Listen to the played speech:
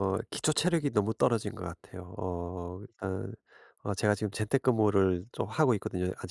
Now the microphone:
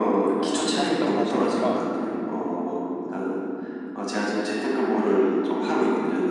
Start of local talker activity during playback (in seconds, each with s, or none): 0.4 s